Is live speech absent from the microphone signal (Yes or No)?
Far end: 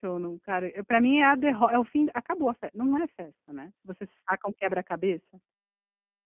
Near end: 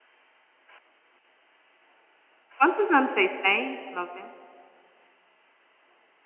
No